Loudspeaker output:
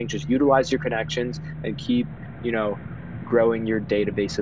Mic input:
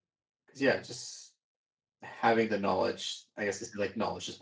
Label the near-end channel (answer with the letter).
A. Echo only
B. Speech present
B